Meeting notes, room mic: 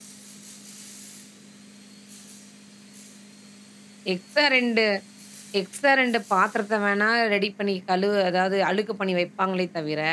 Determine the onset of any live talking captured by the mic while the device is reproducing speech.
4.1 s

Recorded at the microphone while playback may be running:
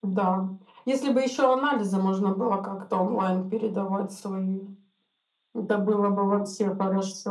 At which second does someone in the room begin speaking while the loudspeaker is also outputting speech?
none

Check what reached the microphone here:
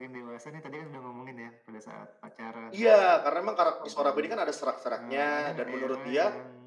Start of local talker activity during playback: 2.7 s

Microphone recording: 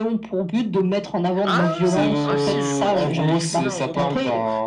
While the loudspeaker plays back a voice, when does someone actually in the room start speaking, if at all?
1.4 s

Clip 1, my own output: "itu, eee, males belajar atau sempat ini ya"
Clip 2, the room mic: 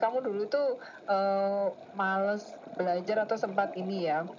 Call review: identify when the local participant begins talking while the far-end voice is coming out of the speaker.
none

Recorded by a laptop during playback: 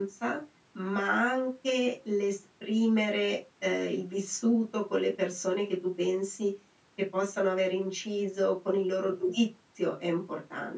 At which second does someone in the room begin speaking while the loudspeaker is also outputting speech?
none

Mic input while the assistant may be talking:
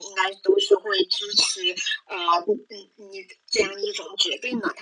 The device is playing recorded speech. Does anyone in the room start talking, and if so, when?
none

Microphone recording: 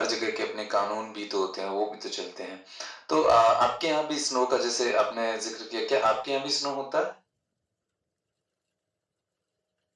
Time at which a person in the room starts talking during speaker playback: none

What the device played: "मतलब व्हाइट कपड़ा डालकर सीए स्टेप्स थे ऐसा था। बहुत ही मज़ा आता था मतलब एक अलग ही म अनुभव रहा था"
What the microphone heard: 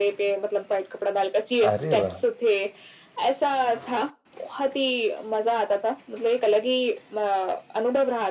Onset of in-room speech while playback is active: 1.6 s

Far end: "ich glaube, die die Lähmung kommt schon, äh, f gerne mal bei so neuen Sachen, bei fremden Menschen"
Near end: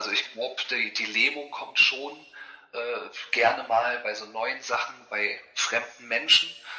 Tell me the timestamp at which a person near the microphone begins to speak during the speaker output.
none

